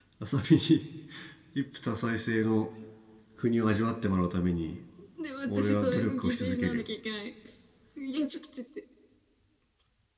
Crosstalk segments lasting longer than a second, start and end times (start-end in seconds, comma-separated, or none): 5.5-6.9